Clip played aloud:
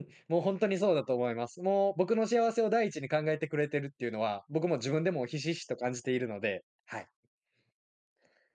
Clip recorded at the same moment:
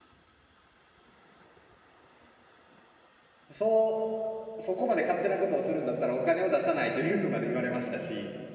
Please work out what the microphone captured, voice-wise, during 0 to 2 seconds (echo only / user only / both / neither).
neither